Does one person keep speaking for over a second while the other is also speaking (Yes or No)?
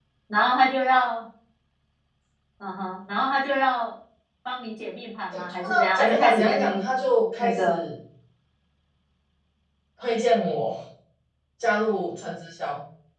Yes